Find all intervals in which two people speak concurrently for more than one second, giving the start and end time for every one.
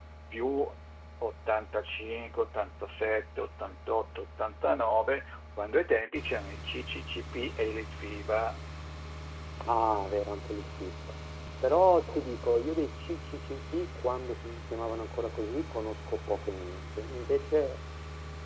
none

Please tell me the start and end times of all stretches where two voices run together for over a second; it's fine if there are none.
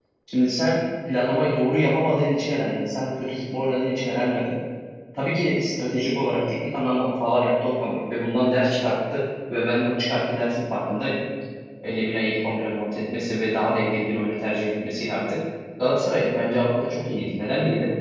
none

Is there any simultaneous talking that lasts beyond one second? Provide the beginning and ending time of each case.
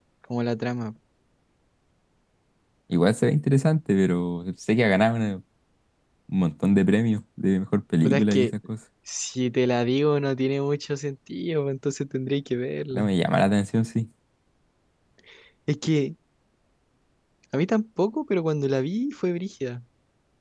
none

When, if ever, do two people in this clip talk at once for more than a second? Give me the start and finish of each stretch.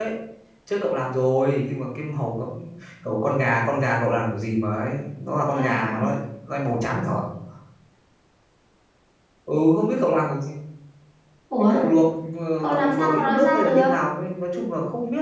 12.6-13.9

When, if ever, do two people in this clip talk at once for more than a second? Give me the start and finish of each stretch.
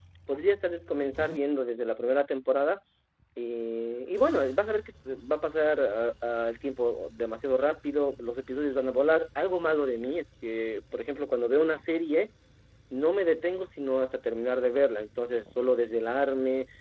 none

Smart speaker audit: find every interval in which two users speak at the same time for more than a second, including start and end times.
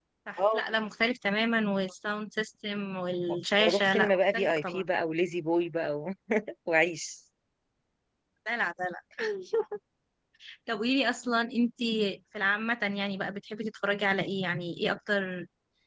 3.6-4.9

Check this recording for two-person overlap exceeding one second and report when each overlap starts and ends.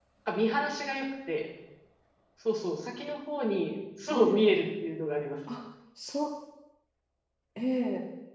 none

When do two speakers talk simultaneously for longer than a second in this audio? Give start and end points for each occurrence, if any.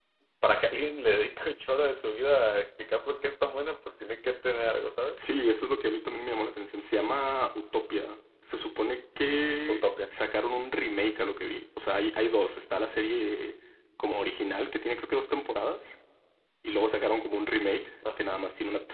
none

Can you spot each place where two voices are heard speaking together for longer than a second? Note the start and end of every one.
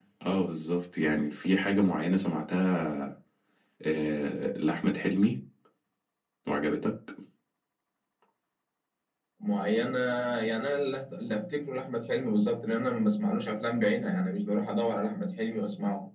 none

